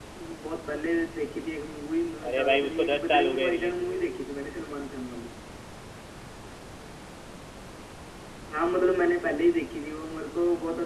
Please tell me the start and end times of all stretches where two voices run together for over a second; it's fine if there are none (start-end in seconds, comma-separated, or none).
2.3-4.0